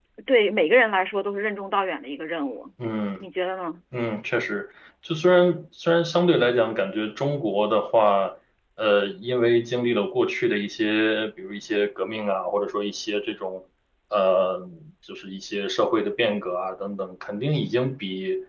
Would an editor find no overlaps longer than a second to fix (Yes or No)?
Yes